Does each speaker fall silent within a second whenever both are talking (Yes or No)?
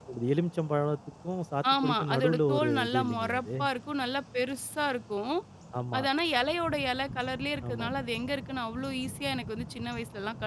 No